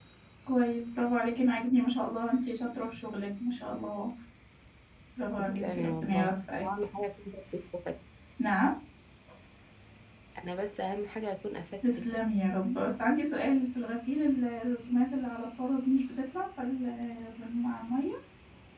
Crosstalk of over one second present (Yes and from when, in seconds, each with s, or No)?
Yes, from 5.4 s